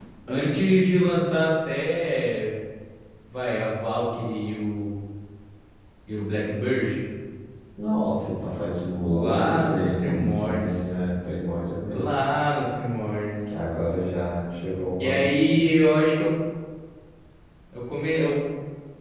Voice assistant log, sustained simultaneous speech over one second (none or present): present